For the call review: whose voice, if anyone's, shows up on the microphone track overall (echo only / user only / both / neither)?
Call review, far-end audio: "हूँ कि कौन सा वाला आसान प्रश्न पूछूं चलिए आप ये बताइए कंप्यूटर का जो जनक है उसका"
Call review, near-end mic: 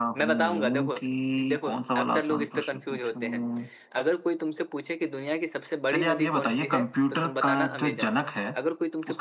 both